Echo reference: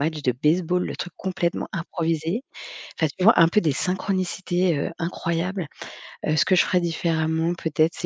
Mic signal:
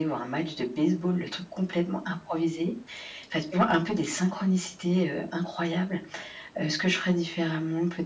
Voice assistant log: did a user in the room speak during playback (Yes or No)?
No